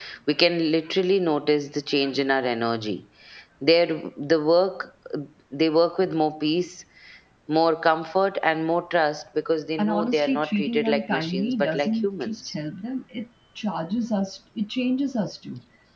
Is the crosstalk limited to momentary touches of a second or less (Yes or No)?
No